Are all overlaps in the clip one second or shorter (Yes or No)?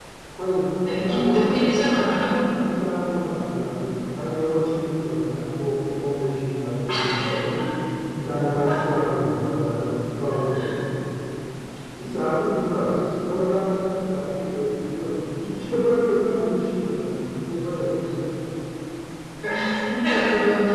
No